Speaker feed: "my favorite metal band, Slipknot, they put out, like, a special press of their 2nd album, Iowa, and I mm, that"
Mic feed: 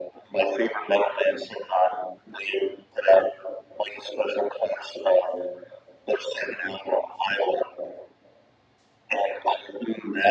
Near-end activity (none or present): none